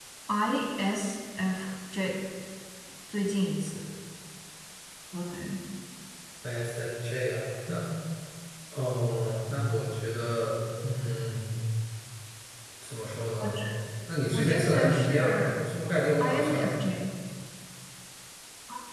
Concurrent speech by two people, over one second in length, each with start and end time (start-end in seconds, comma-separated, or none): 14.3-15.6